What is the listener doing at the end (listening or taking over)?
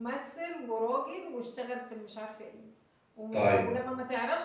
listening